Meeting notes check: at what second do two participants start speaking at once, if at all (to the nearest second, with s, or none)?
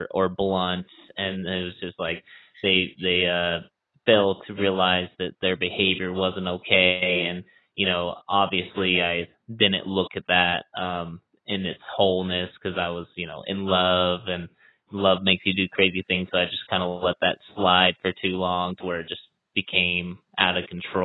none